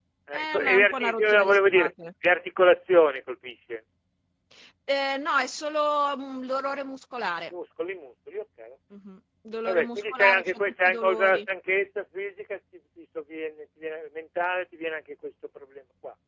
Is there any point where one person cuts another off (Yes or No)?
Yes